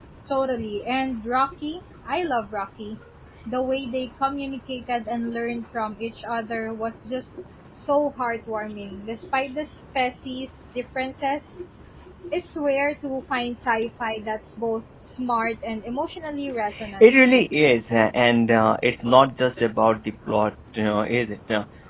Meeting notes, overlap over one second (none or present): none